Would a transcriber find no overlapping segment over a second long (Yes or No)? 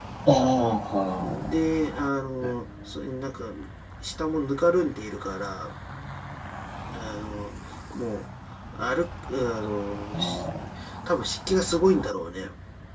Yes